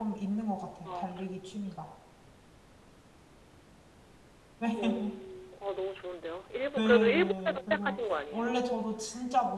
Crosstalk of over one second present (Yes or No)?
Yes